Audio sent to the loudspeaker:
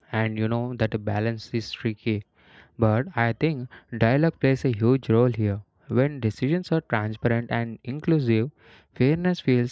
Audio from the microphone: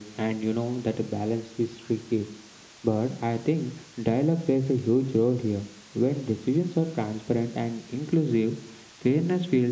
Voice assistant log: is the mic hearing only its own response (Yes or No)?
Yes